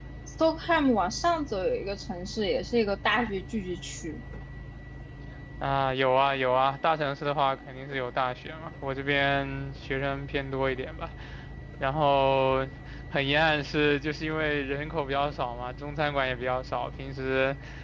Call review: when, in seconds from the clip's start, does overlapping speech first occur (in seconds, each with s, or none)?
none